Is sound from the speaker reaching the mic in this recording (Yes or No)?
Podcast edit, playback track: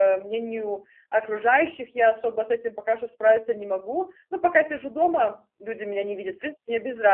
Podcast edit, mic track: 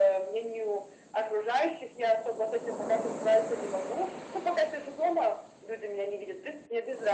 Yes